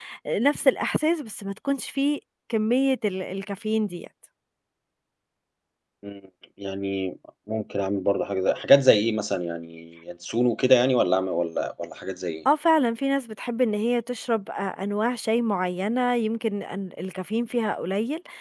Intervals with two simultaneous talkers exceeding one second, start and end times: none

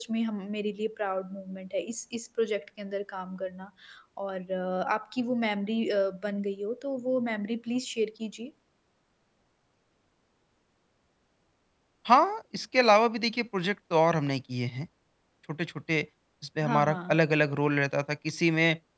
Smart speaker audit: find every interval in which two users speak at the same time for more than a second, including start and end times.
none

